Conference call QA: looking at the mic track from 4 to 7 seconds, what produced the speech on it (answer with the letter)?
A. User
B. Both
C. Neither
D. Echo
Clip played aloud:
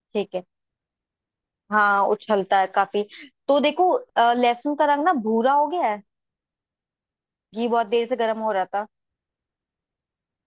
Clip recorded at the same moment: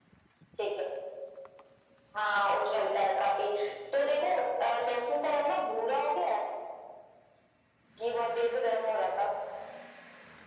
D